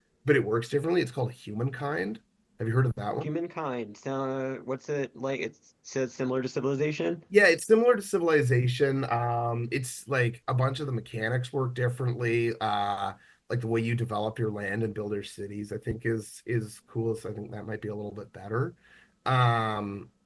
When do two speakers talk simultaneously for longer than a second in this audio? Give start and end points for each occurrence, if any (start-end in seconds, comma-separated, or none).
none